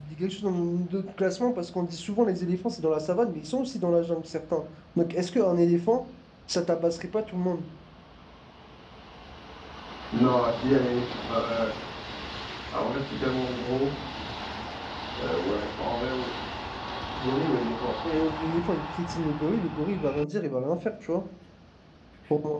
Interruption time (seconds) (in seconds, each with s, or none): none